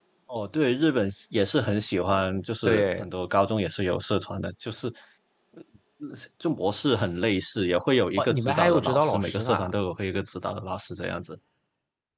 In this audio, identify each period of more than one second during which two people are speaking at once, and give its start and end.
8.2-9.7

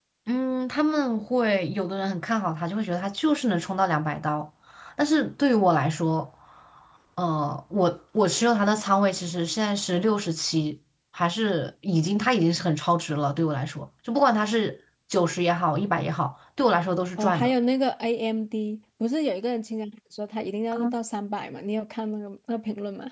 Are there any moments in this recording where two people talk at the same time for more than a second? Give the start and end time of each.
none

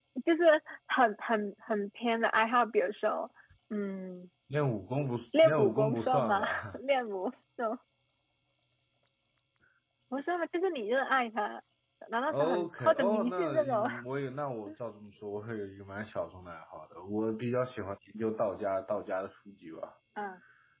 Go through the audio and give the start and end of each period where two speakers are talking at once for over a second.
5.4-6.8, 12.3-13.9

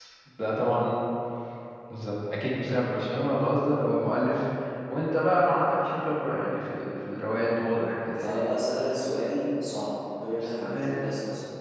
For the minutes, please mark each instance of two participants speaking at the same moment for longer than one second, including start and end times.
5.8-7.1

